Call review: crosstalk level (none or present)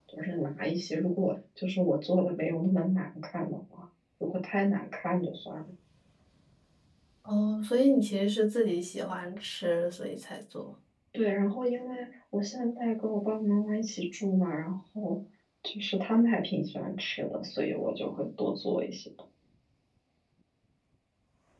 none